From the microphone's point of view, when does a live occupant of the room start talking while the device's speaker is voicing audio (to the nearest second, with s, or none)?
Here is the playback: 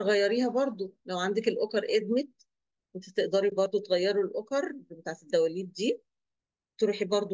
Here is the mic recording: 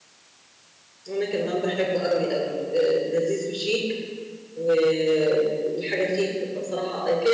1 s